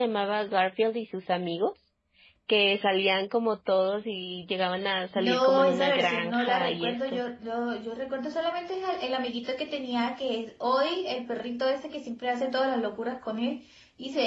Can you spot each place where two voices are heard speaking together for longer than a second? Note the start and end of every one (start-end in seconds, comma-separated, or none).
5.2-7.2